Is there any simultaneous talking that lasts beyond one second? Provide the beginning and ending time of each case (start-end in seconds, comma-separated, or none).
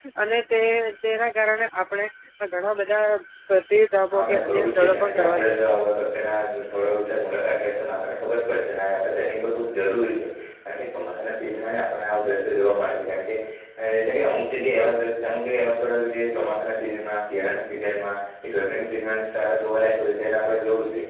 4.1-5.6